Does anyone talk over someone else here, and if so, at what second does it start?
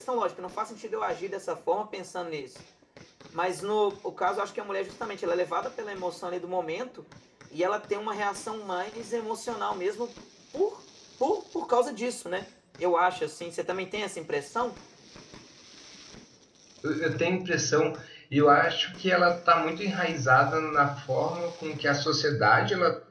none

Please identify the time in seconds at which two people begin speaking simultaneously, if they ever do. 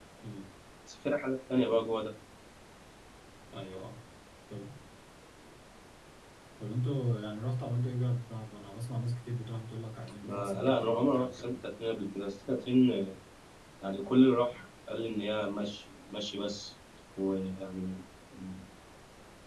10.2 s

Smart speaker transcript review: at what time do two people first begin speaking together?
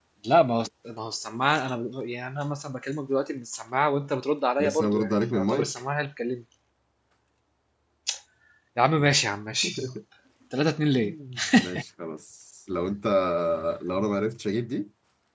4.6 s

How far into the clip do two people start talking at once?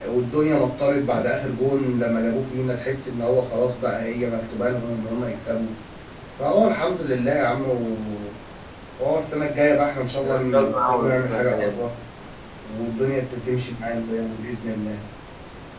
10.2 s

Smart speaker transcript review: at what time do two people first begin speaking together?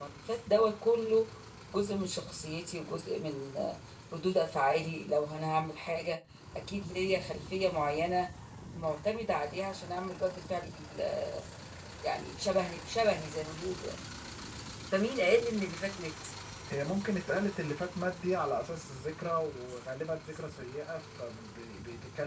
none

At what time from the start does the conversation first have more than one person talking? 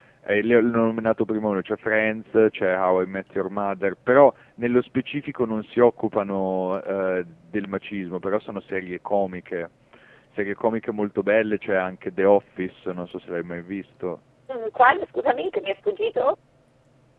none

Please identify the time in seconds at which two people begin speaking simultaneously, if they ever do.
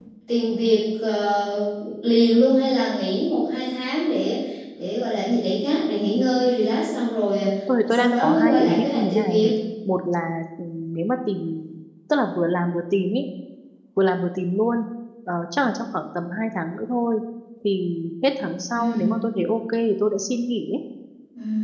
7.8 s

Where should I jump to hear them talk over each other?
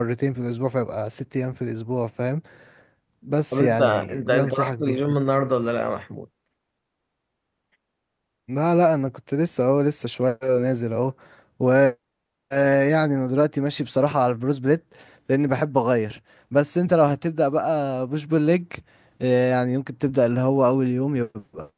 3.5 s

